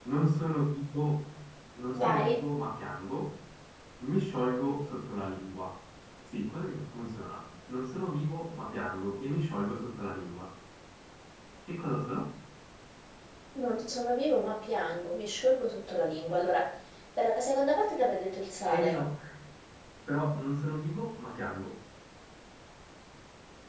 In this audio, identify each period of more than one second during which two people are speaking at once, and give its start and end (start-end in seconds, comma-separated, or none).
none